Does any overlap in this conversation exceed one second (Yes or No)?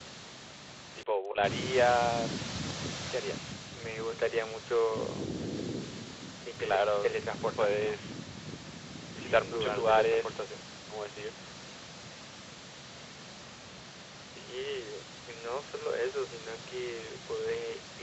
Yes